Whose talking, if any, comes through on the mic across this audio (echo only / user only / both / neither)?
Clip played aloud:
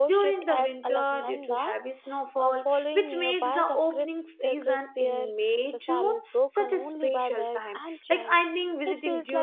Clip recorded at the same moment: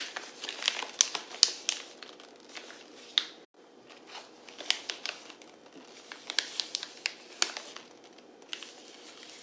neither